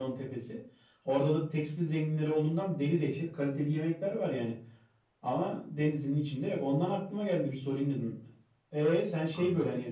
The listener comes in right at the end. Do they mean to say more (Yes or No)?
No